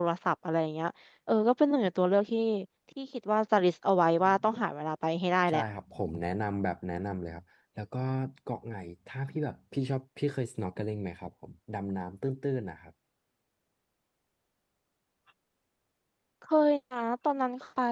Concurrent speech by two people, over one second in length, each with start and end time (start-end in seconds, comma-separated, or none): none